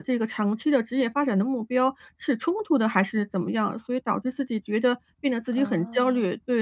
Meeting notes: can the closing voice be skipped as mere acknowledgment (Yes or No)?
Yes